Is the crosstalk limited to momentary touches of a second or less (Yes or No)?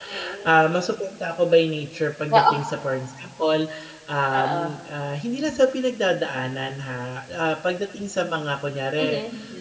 Yes